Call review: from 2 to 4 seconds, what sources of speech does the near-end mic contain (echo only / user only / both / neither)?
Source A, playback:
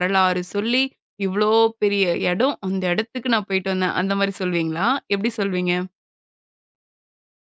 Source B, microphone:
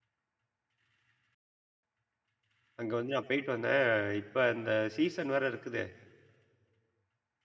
user only